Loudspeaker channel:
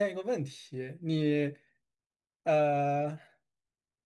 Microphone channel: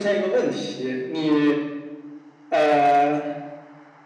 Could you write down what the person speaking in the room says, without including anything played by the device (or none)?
none